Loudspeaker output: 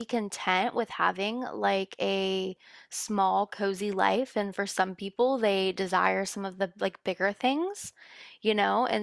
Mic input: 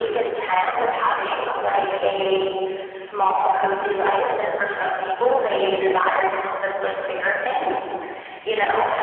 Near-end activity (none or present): none